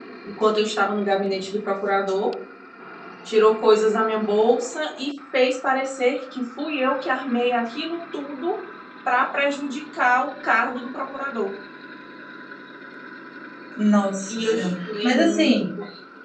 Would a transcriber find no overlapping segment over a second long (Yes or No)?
No